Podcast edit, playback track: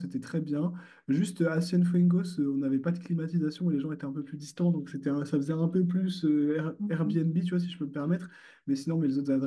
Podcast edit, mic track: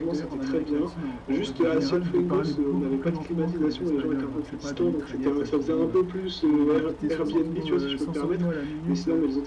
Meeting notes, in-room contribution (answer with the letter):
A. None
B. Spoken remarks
B